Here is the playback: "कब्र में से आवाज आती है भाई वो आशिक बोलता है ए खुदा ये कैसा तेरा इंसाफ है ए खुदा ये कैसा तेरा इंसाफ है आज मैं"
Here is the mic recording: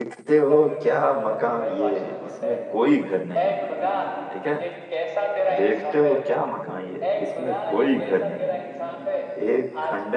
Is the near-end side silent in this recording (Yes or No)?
No